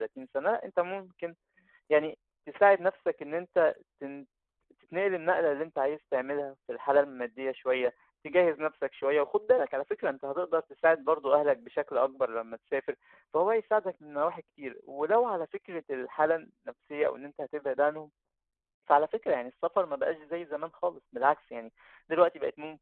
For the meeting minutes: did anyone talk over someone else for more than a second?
No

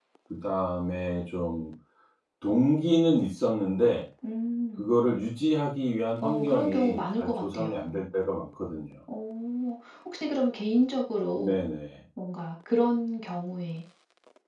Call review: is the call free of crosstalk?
No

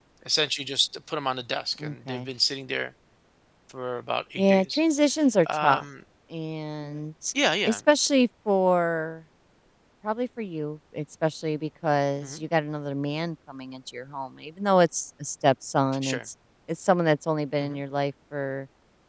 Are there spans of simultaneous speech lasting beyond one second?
No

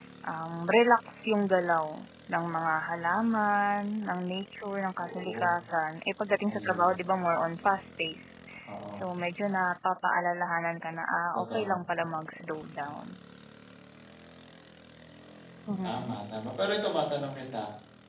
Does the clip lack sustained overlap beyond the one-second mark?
Yes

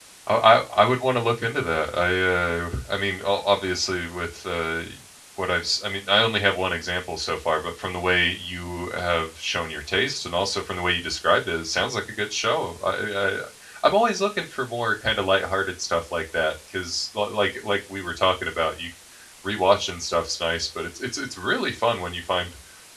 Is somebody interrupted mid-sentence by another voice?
No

